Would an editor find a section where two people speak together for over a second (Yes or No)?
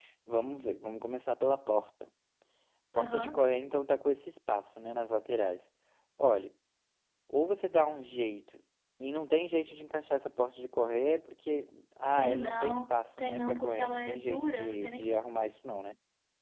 Yes